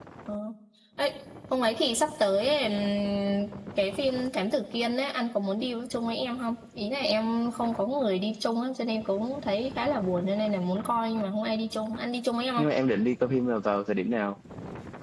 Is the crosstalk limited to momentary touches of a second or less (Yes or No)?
Yes